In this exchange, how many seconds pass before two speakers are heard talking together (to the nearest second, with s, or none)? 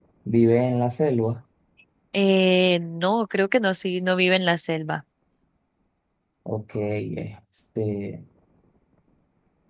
none